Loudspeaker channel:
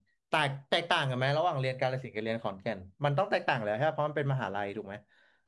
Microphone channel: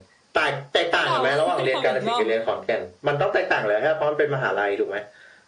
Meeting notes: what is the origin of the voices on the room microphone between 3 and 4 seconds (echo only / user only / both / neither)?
echo only